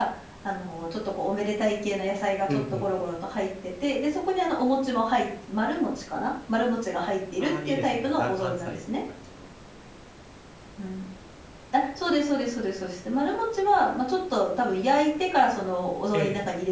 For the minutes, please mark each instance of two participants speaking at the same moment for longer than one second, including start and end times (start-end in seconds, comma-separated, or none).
7.4-8.8